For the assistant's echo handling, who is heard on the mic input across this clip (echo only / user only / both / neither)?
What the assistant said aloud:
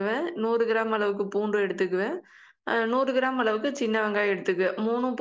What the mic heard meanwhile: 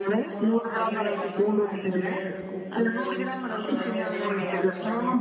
both